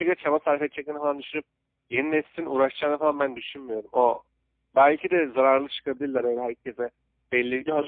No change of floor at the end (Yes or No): No